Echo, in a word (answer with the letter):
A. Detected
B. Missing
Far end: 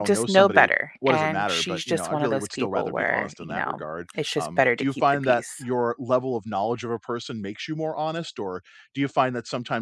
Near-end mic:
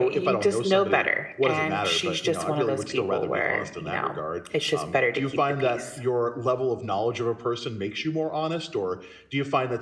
A